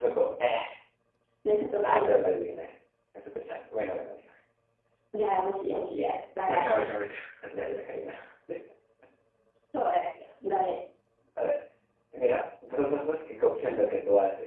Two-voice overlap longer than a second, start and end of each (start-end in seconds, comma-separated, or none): none